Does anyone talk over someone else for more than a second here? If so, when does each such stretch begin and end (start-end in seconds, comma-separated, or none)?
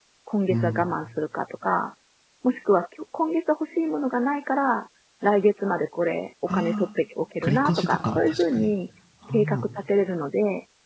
7.4-8.7